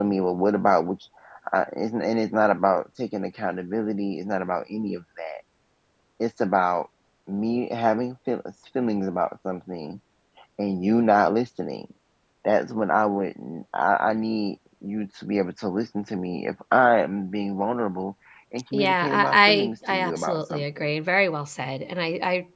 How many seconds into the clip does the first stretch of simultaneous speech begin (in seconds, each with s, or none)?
18.7 s